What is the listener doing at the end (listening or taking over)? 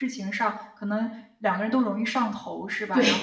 listening